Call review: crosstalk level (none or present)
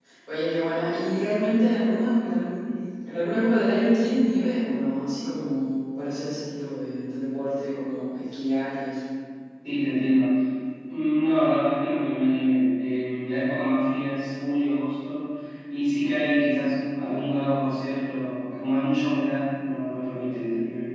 none